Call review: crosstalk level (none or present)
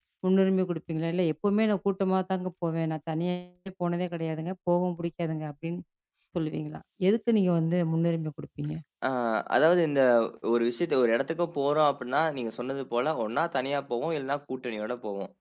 none